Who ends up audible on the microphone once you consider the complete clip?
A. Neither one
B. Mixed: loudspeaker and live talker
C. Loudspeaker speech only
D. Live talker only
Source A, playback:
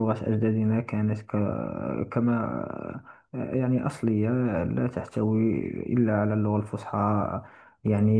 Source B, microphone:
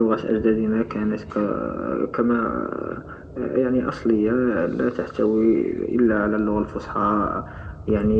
C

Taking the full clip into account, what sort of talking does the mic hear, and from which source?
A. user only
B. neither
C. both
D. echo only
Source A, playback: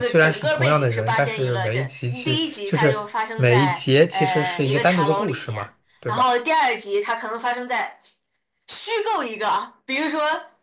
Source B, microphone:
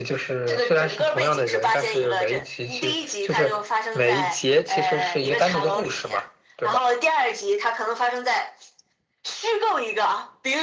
D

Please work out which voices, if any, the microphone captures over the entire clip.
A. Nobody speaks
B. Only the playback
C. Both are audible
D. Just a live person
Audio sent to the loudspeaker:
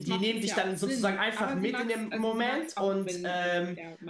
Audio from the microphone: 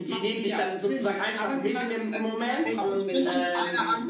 C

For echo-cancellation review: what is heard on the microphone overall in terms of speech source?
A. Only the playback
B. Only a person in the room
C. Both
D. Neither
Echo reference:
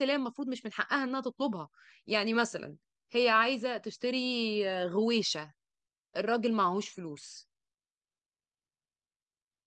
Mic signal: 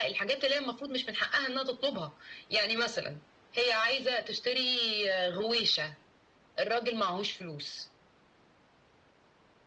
A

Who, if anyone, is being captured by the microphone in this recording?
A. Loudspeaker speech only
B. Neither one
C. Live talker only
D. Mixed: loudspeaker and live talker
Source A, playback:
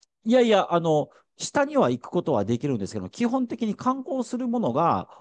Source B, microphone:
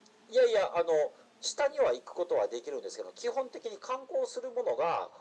A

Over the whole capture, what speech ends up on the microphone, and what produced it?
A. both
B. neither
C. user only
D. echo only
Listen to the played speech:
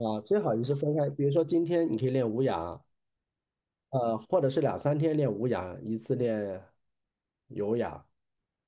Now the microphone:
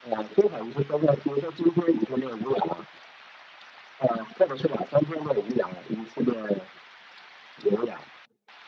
D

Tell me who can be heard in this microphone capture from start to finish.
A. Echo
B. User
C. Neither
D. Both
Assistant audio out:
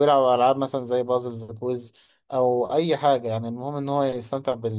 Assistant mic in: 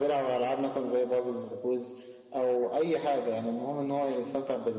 A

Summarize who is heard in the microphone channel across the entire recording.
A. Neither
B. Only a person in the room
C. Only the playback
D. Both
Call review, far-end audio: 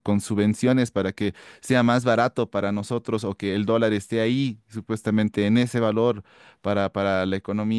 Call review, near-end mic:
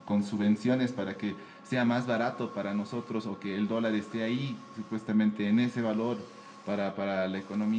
C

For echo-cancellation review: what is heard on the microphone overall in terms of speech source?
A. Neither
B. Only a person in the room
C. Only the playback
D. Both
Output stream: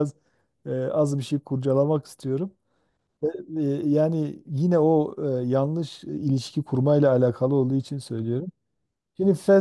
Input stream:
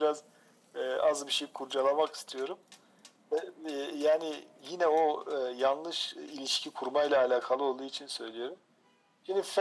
C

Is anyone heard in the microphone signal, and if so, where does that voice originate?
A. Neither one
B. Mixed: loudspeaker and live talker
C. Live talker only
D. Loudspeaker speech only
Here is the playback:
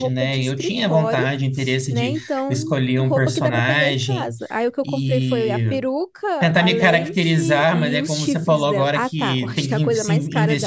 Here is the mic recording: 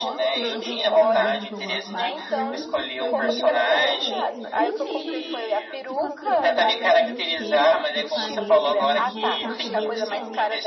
B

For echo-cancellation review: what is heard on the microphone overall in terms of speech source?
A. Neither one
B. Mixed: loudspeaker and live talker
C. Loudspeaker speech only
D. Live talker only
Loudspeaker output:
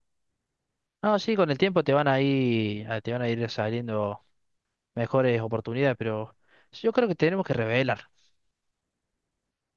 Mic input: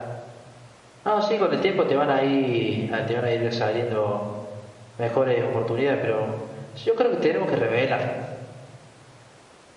C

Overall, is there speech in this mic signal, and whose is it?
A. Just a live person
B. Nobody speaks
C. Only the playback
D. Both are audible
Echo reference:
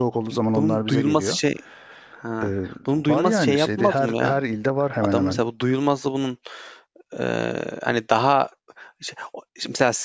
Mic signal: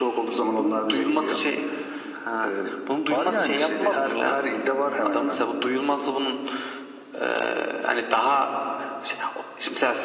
C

